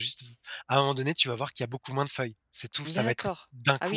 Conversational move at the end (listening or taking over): taking over